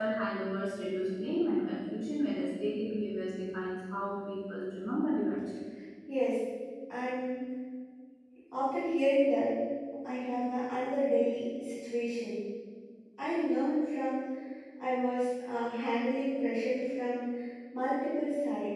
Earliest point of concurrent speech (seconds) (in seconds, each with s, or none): none